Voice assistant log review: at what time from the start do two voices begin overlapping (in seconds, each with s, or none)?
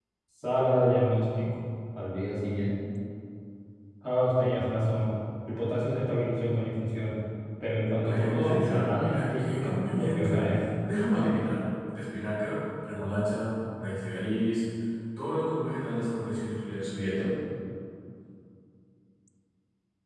8.0 s